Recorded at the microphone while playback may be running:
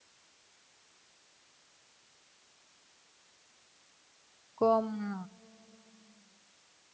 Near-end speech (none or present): present